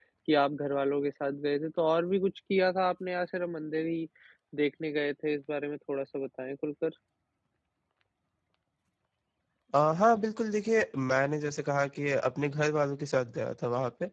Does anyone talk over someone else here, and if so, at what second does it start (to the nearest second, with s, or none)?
none